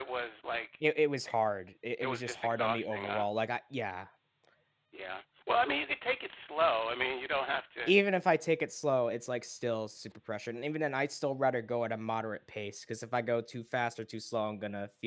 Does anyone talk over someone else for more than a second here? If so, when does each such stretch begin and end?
2.0-3.2

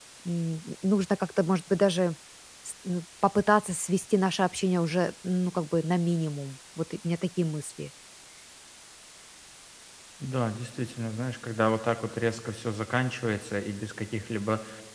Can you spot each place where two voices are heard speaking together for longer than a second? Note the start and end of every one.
none

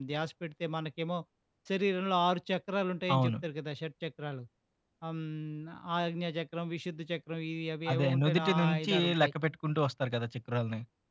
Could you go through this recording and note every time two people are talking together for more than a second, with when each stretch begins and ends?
7.9-9.3

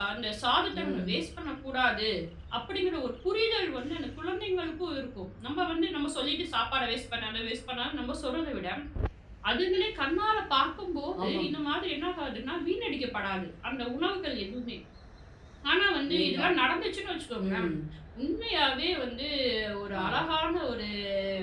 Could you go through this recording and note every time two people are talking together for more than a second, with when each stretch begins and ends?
none

